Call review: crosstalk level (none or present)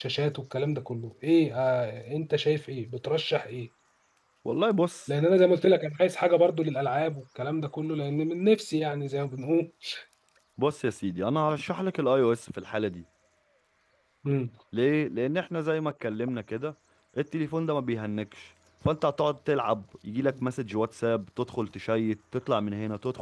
none